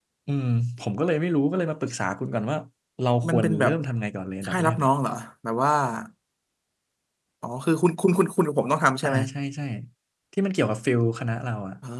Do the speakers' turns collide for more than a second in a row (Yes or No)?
No